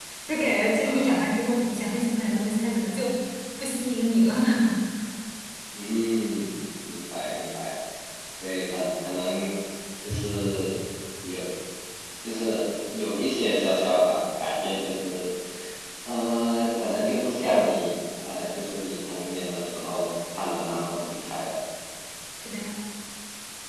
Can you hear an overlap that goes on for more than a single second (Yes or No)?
No